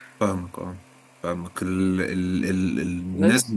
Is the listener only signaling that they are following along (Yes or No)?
Yes